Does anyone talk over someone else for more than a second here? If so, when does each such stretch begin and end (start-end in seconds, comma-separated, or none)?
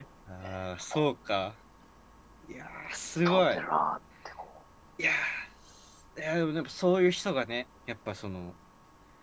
none